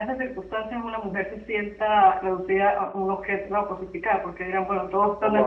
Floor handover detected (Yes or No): No